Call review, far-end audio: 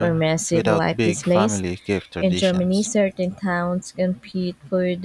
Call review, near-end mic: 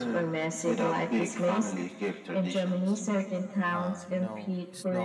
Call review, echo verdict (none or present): present